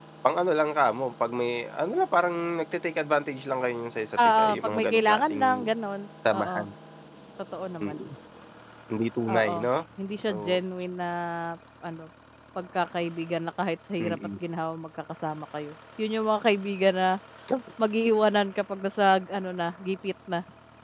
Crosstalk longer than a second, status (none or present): present